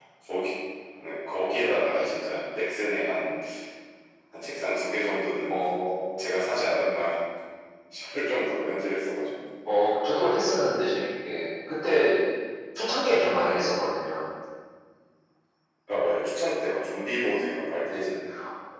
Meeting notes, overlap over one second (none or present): none